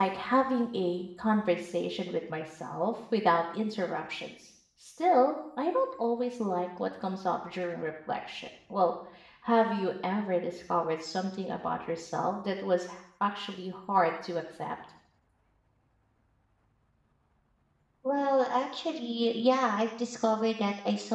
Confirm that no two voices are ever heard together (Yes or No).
Yes